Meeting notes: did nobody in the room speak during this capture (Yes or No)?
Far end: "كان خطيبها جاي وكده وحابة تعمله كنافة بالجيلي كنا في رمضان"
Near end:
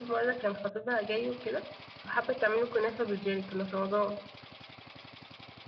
Yes